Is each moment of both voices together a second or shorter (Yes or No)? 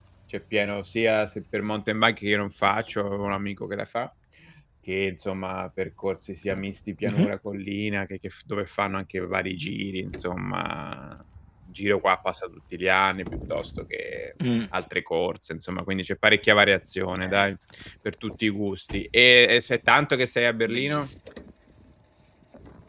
Yes